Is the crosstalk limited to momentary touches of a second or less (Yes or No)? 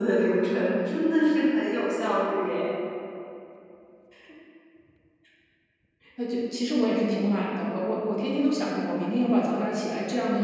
Yes